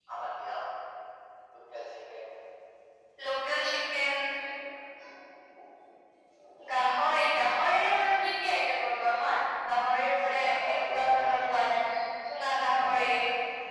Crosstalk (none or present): present